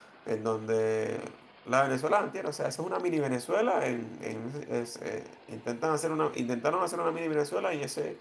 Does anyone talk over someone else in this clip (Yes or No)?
No